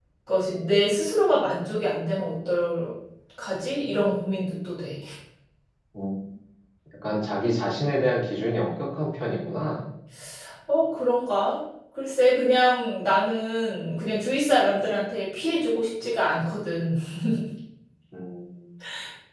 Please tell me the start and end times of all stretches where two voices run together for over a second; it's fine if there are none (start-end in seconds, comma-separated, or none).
none